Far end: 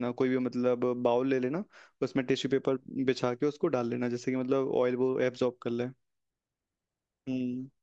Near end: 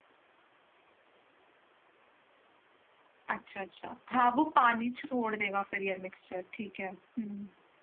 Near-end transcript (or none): अच्छा अच्छा हाँ वो पानी छोड़ देगा फिर ये मिक्सचर ठीक है हम्म